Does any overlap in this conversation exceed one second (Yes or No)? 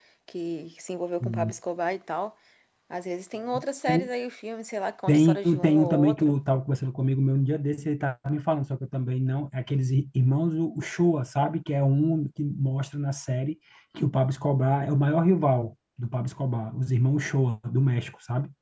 Yes